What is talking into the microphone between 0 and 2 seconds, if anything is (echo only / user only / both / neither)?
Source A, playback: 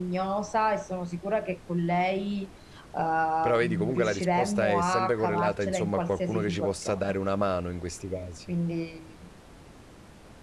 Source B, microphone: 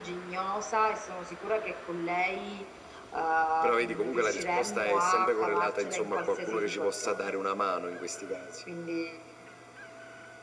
echo only